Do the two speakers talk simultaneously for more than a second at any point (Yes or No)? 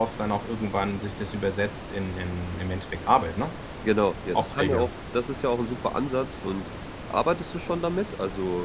No